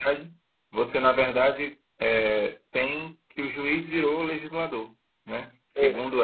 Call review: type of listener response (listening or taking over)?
listening